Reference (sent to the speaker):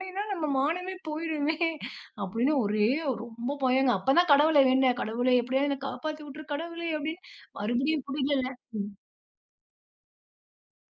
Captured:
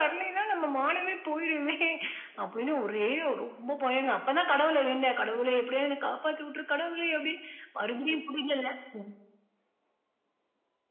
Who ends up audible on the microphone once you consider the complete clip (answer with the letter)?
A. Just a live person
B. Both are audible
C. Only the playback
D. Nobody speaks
C